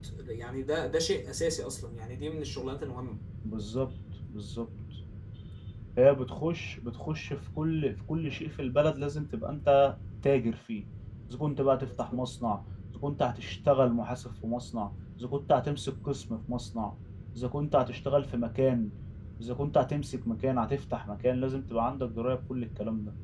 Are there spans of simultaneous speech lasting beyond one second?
No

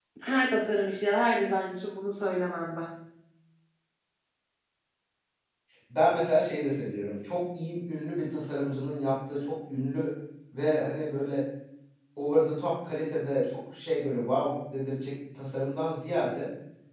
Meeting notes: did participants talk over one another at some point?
No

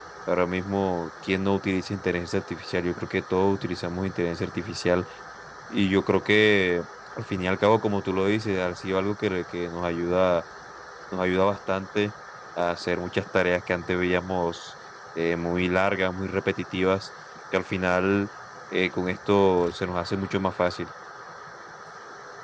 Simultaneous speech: No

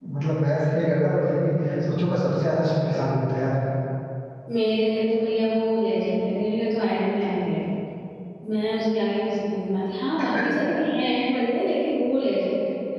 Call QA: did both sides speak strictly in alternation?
Yes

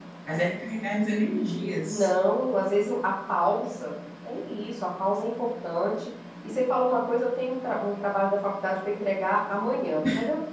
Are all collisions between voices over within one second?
Yes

